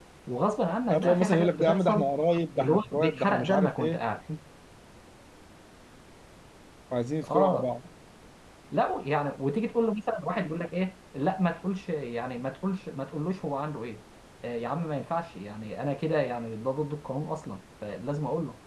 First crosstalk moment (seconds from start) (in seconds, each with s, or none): 0.9 s